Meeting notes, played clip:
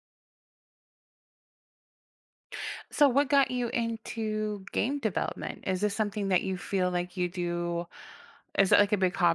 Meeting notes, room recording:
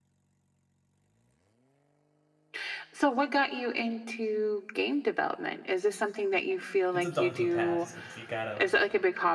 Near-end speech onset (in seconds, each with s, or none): 6.9 s